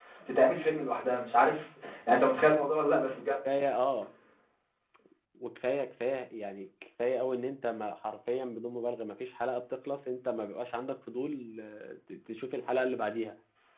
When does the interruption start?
none

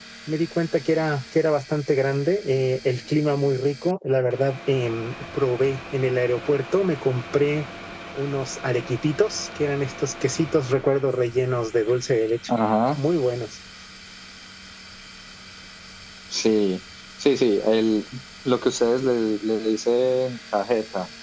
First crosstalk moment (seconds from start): none

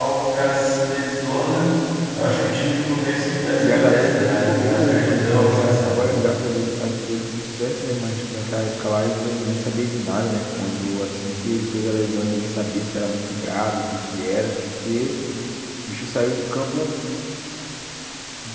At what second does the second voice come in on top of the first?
3.6 s

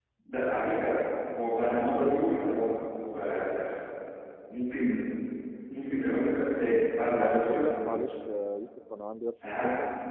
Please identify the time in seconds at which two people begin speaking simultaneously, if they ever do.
6.6 s

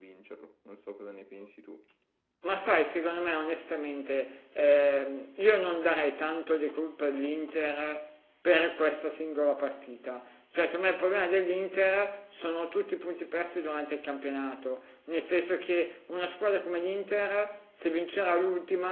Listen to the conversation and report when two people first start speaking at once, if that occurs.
none

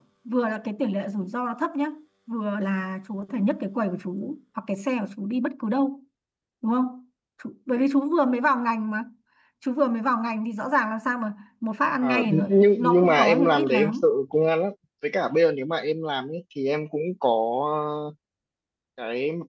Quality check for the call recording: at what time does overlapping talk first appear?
12.0 s

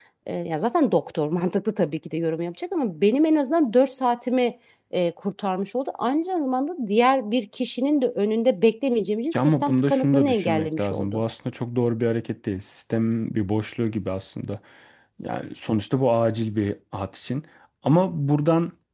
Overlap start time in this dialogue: 9.3 s

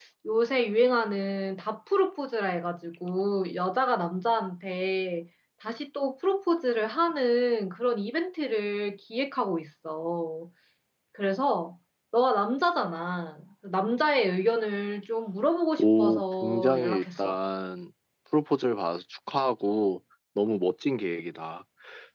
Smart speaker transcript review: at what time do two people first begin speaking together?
15.8 s

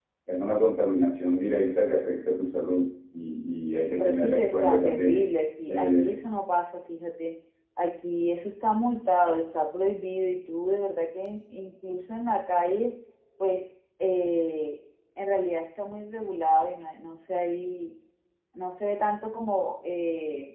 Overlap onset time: 3.9 s

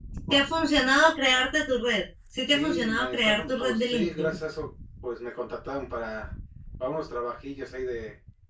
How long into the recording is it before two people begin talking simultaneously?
2.5 s

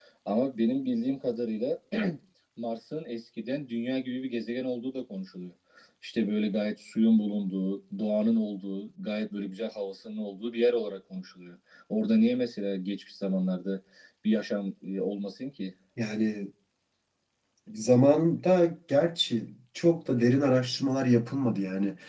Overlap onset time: none

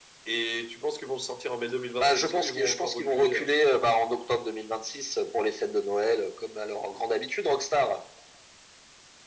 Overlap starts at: 2.0 s

